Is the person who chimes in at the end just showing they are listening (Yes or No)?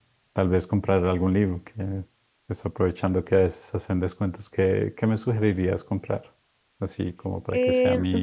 No